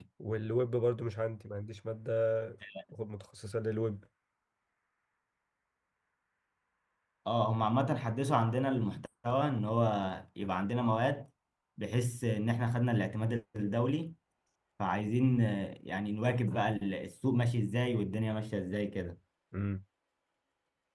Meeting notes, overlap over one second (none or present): none